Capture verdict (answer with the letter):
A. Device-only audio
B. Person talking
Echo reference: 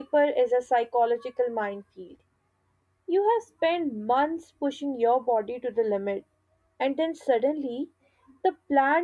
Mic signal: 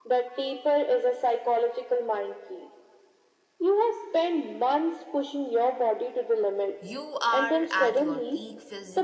B